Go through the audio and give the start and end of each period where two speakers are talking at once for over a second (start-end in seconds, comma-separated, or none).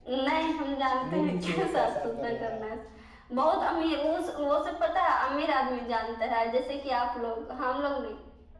1.1-2.6